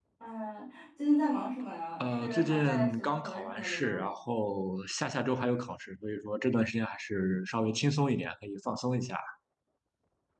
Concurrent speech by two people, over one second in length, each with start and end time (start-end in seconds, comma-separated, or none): 2.0-4.0